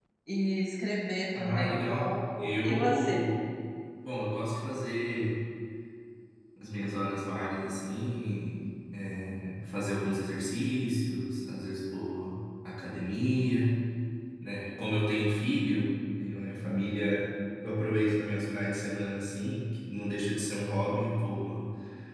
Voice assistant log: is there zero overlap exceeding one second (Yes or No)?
No